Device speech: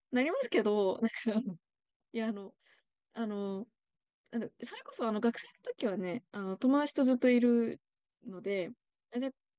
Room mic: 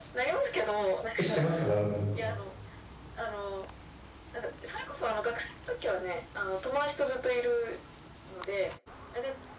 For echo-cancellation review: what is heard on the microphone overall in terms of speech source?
both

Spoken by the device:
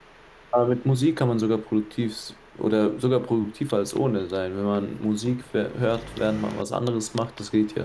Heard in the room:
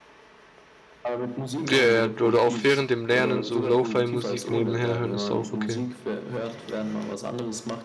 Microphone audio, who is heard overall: both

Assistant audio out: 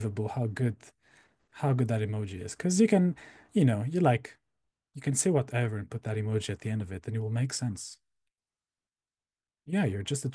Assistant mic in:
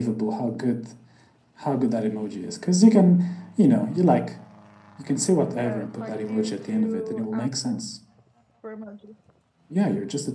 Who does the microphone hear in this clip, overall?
both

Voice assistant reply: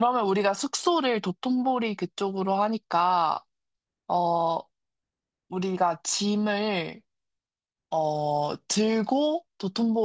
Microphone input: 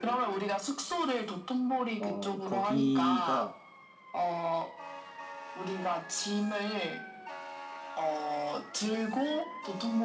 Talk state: both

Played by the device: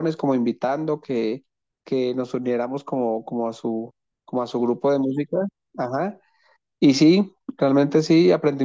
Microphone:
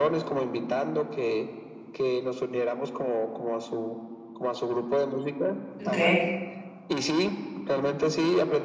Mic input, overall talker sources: both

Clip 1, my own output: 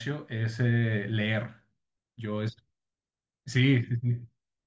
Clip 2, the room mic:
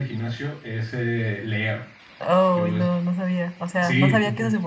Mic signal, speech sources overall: both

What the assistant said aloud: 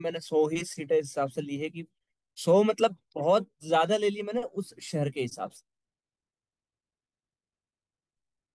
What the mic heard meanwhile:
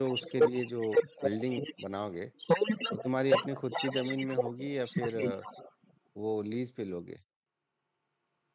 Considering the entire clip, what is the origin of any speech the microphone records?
both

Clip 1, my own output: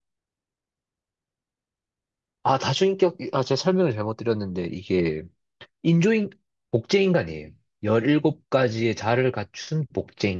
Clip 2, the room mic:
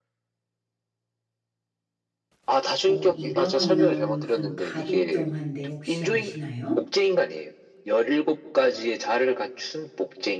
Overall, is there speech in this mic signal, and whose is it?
both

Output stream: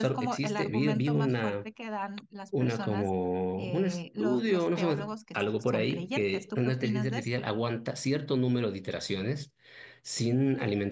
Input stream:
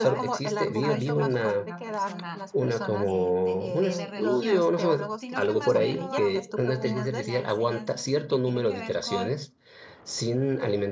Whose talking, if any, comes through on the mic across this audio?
both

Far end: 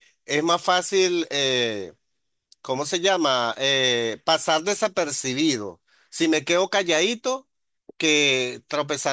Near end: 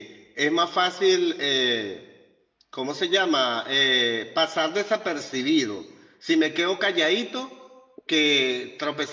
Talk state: echo only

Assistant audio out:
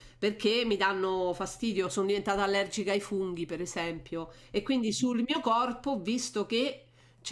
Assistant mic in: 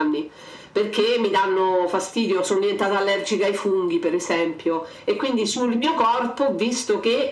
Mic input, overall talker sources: echo only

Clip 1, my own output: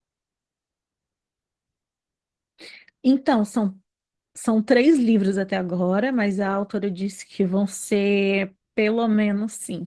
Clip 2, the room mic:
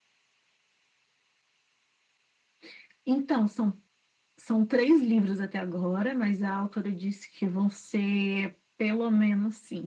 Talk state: echo only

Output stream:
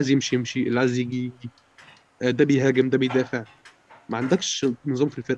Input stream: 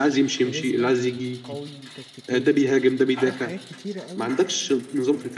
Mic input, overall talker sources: both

